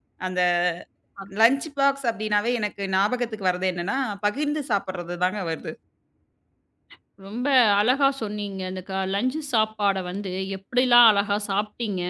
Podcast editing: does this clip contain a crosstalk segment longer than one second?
No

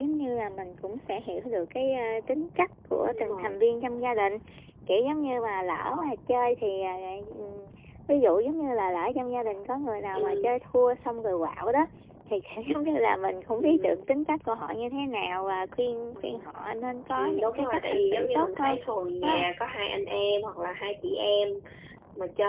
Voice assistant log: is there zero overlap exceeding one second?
No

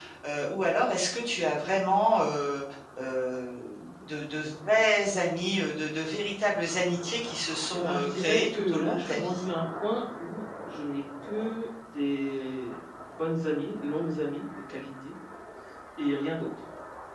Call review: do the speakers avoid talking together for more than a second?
No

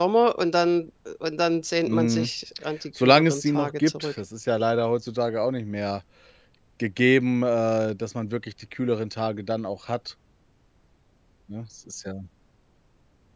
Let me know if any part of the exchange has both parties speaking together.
Yes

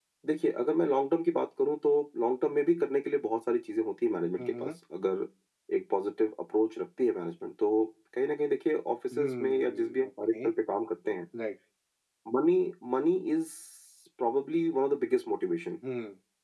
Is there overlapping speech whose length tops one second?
Yes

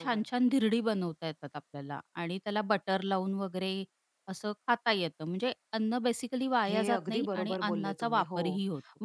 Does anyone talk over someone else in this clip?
Yes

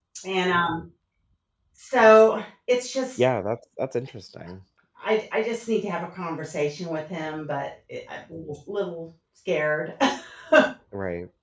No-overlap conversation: Yes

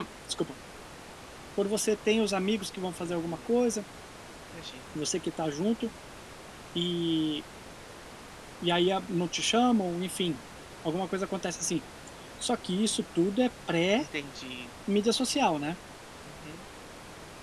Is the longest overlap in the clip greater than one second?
No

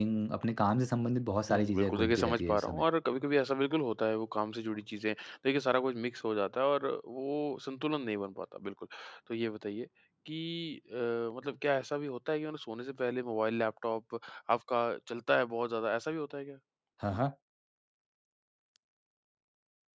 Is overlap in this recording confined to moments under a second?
No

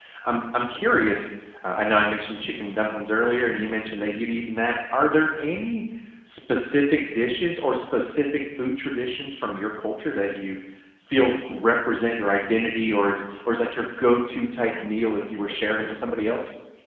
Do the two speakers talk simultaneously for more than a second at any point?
Yes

